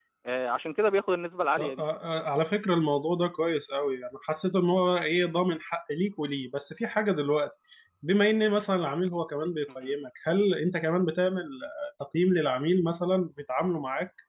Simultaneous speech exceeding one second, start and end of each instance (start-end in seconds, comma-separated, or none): none